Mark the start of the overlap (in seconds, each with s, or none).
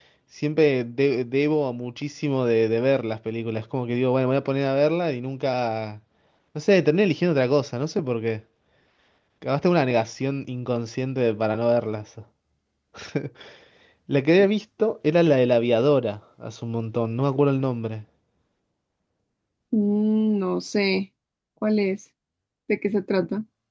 none